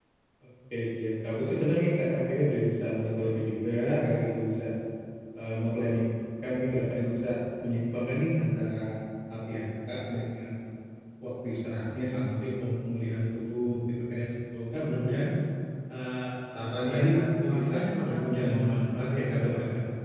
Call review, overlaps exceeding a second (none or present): present